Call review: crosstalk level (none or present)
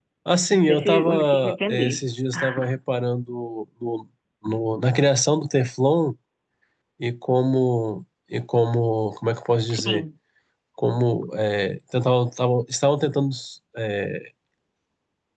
present